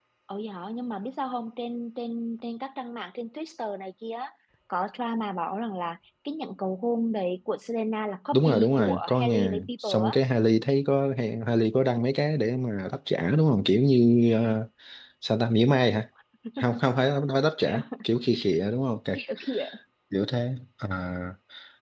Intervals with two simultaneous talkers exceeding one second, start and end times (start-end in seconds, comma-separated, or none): 8.3-10.2